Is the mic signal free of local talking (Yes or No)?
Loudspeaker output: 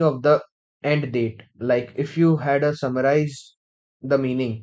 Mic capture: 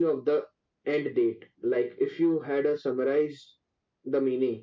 Yes